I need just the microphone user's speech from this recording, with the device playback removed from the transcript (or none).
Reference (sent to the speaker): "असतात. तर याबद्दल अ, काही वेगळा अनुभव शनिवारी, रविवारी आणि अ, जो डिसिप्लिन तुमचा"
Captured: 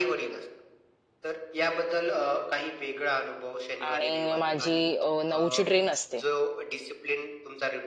आणि माझी अ, 9ची ट्रेन असते.